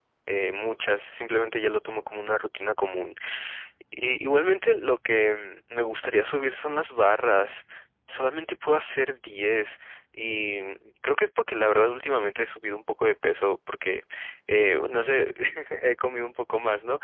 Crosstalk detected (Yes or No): No